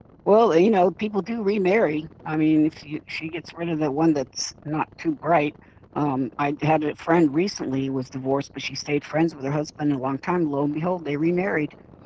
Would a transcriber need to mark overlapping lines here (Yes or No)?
No